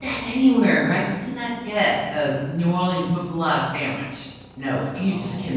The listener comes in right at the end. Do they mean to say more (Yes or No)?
No